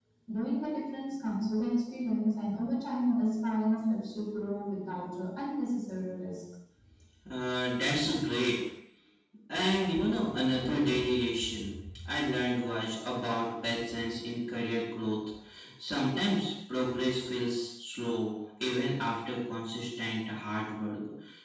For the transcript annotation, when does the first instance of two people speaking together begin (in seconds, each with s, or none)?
none